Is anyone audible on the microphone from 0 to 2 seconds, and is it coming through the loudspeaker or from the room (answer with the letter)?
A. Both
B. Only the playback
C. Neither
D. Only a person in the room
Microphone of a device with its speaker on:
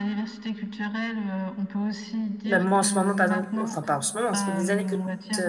B